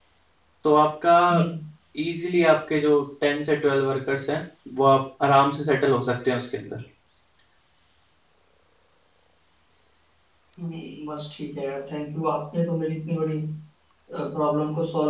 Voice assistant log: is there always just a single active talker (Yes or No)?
Yes